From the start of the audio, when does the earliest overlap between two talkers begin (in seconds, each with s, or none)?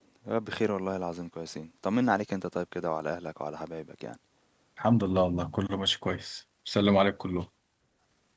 none